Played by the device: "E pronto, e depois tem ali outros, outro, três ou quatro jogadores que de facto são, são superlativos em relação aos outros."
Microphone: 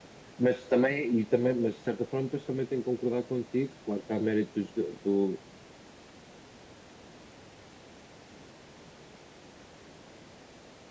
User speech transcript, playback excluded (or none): mas também, e também, mas de certa forma, depois também tenho que concordar contigo. Claro que há mérito do, joga- do-